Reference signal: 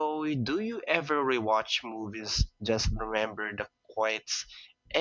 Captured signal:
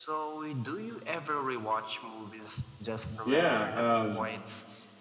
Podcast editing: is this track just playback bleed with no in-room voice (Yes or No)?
No